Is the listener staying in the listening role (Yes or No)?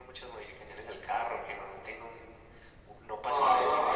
No